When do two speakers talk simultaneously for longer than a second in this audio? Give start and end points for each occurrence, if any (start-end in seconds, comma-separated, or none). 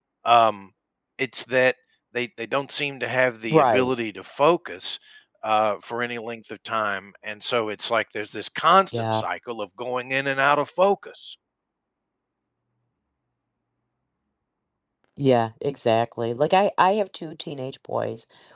none